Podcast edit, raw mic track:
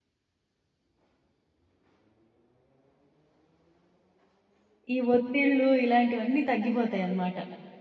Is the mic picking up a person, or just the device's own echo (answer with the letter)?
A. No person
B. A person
B